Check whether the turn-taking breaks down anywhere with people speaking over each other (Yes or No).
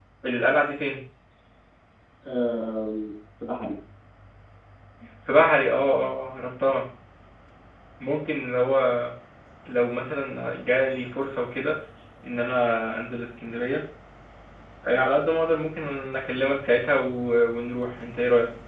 No